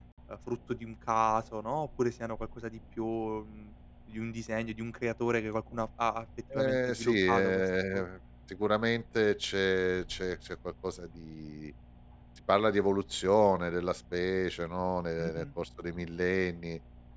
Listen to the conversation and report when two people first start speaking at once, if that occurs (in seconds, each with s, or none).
6.5 s